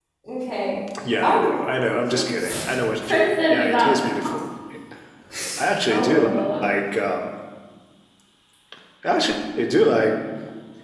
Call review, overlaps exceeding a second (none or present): present